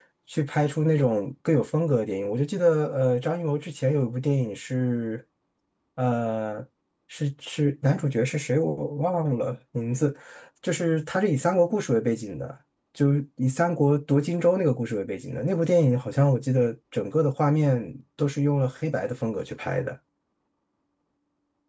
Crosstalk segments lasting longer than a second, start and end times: none

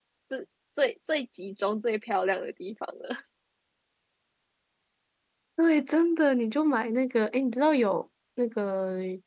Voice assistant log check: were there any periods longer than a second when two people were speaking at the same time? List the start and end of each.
none

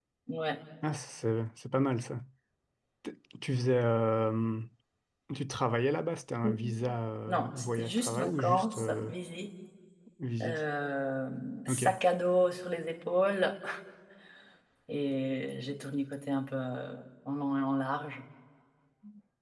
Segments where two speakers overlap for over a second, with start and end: 7.3-9.1

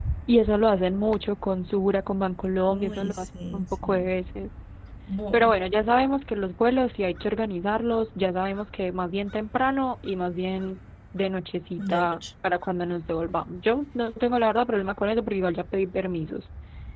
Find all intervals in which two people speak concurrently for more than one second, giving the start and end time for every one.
2.7-4.1

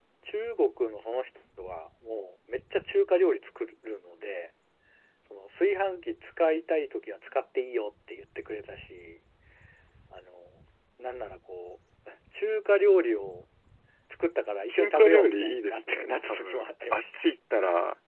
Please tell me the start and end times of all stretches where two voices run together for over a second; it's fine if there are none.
14.7-17.0

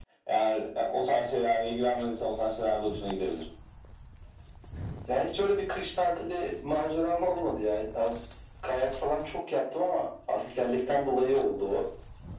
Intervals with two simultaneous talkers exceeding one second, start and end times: none

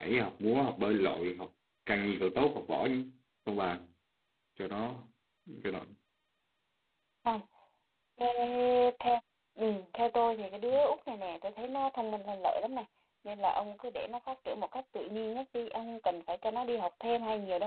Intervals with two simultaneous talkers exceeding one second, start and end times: none

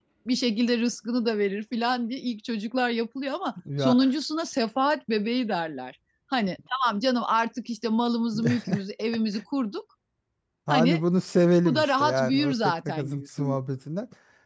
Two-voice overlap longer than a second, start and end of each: 11.6-13.6

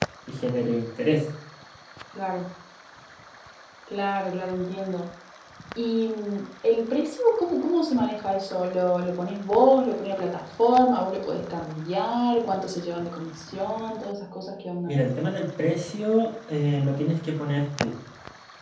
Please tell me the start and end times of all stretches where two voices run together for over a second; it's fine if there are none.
none

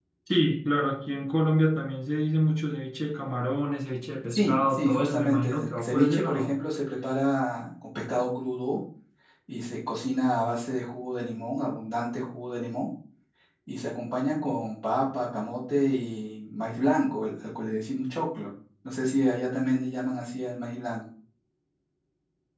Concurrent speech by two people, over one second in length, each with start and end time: 4.3-6.6

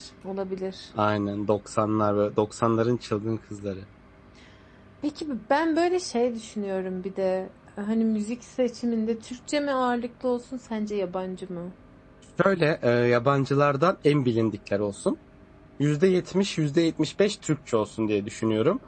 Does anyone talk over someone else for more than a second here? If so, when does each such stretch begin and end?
none

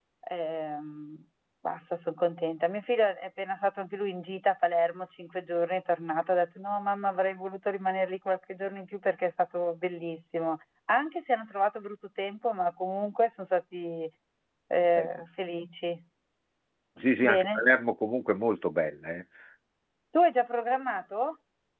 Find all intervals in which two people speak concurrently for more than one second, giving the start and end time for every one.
none

